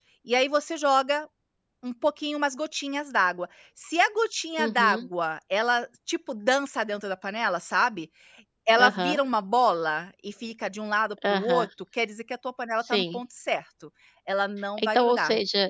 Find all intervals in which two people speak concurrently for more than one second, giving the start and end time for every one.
none

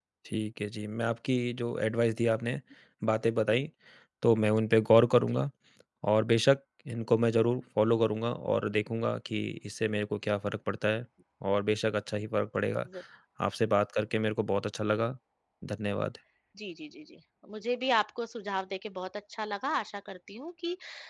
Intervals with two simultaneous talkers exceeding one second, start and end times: none

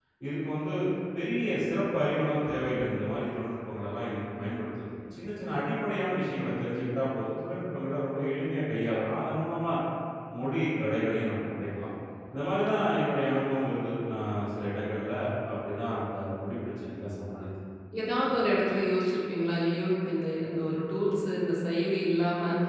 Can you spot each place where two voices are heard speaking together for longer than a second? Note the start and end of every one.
none

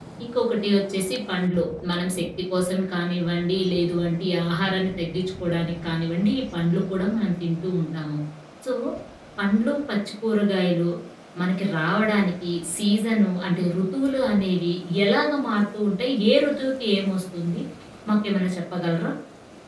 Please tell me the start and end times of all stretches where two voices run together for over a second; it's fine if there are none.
none

